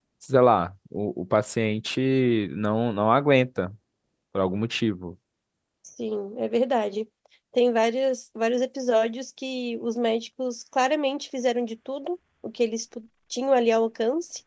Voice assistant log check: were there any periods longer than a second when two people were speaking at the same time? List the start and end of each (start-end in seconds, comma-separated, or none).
none